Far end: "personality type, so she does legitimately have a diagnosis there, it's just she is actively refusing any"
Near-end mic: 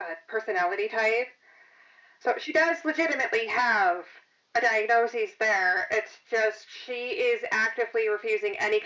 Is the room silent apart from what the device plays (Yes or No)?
Yes